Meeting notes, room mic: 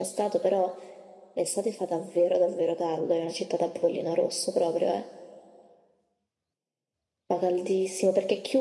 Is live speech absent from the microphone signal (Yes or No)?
Yes